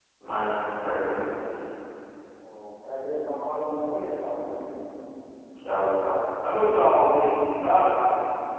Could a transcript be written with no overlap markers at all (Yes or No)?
Yes